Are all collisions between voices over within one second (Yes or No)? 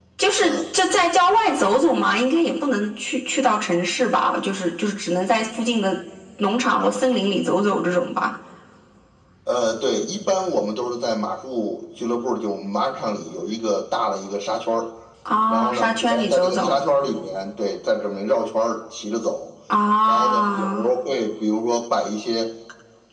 No